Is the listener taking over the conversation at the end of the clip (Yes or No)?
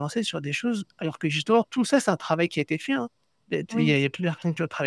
No